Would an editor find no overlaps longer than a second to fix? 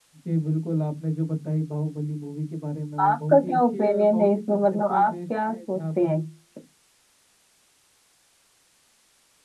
No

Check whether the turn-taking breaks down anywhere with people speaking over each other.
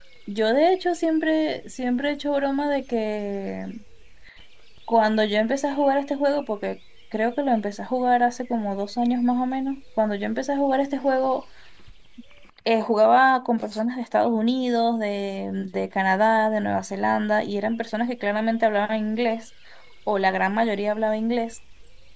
No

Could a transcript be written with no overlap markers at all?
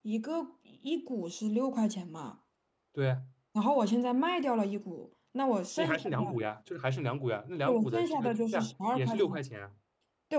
No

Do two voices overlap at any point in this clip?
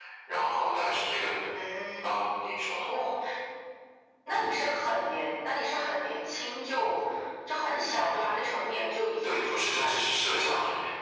Yes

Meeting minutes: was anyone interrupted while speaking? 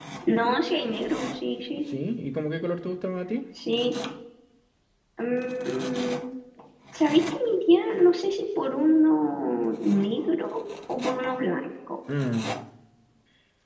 No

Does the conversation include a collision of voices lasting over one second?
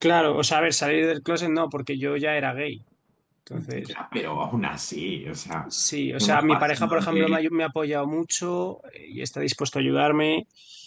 Yes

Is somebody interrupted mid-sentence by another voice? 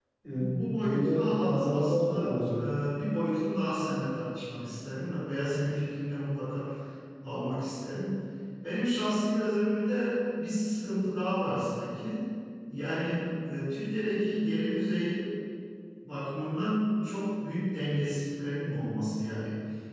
Yes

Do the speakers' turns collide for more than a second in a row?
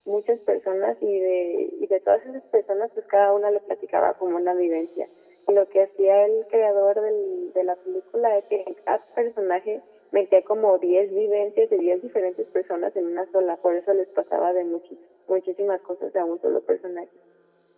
No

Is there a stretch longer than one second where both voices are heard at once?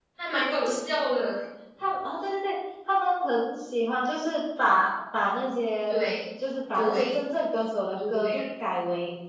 No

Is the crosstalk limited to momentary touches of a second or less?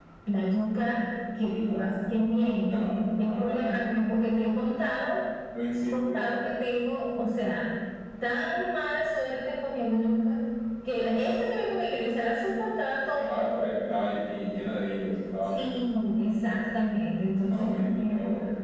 No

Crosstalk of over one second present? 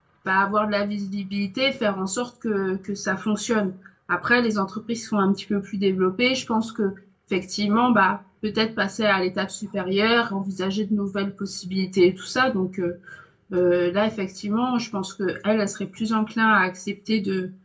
No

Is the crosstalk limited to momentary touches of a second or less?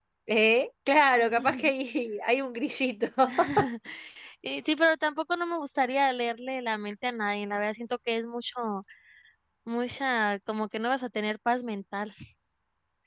Yes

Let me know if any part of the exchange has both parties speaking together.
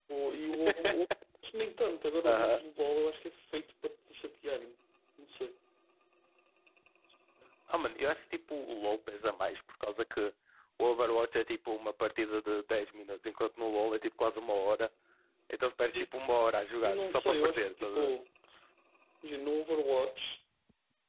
Yes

